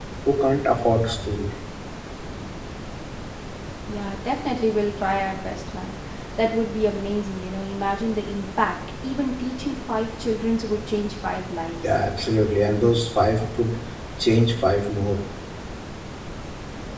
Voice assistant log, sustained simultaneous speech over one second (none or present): none